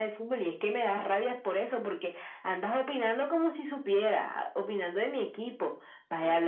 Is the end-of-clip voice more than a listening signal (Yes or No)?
No